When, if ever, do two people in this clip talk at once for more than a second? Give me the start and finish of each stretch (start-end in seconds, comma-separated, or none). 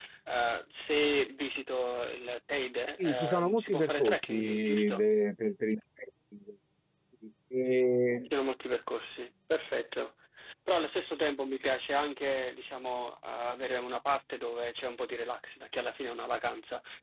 3.0-5.0